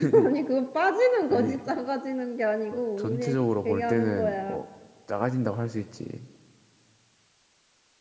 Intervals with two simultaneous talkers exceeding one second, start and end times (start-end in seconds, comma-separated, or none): 2.7-4.6